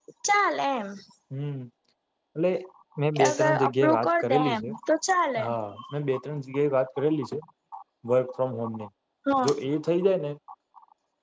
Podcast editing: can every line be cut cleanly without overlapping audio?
No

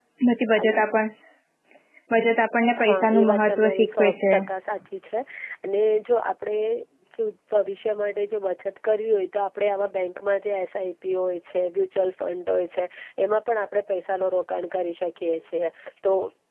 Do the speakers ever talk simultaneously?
Yes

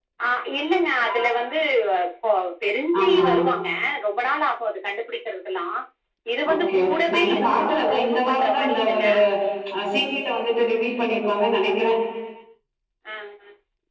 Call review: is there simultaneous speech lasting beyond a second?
Yes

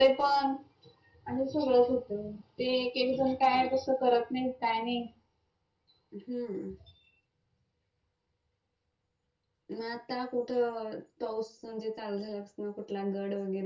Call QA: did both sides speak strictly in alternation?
Yes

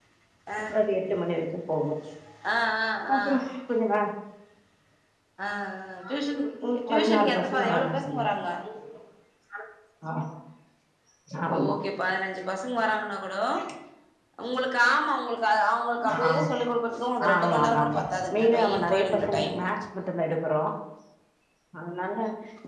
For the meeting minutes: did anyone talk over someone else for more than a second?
Yes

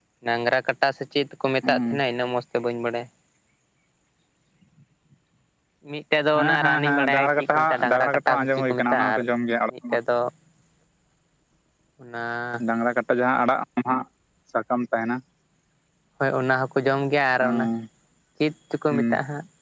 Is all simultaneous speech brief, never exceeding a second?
No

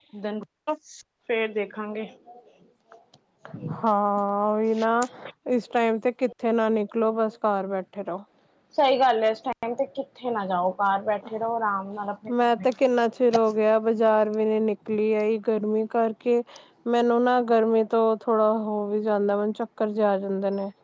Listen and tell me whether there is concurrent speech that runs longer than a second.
No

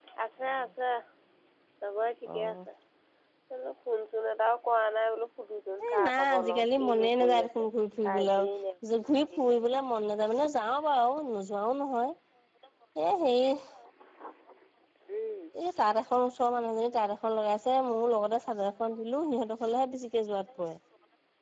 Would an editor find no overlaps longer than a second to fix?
No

